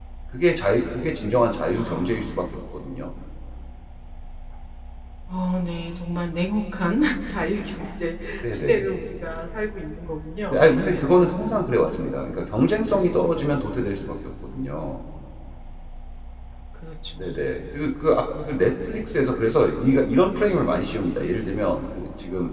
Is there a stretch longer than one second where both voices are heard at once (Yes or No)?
Yes